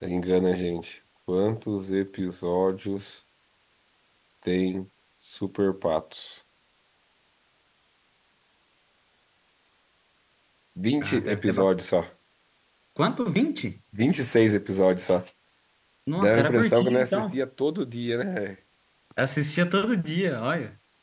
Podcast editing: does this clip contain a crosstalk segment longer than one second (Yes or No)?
Yes